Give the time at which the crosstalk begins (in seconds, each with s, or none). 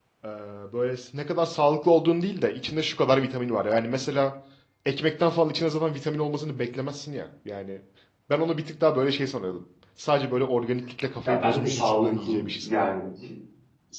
11.2 s